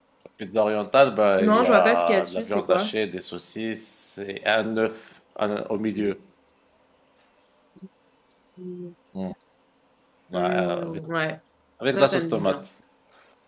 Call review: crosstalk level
present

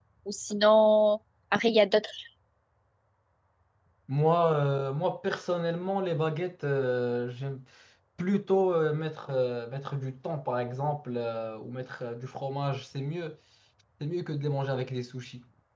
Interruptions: none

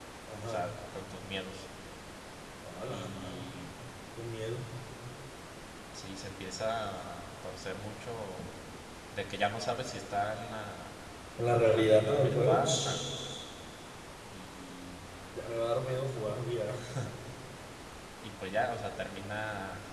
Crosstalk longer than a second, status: present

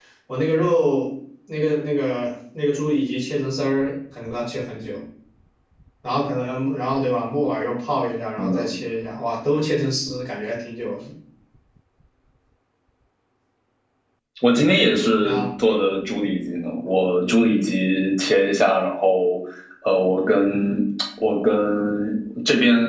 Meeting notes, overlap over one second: none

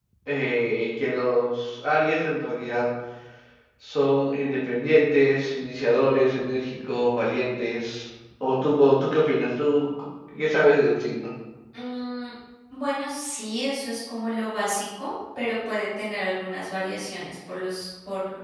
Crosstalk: none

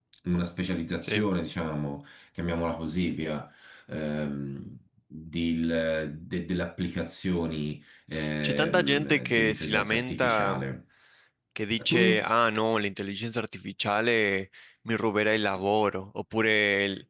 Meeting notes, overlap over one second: present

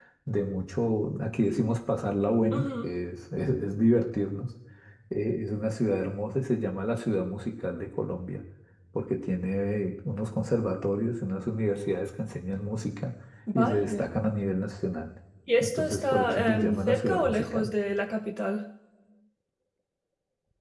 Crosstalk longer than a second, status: present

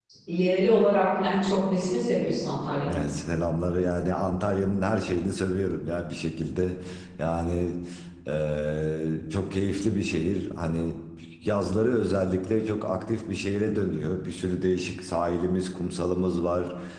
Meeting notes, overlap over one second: none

